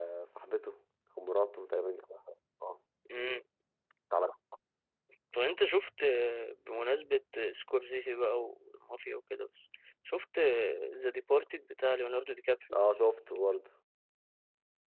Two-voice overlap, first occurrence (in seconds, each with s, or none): none